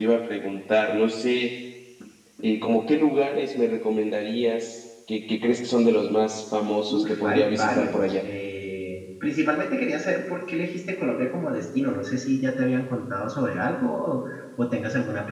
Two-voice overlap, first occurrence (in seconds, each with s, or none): 6.9 s